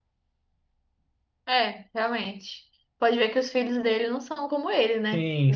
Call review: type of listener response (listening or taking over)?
taking over